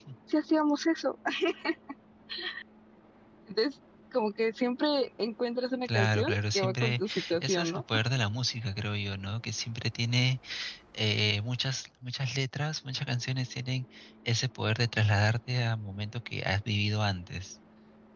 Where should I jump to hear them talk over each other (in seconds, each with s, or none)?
5.8 s